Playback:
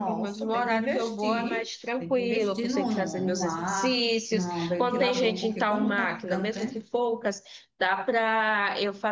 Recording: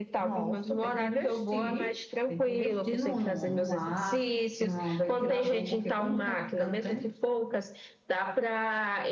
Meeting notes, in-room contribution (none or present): none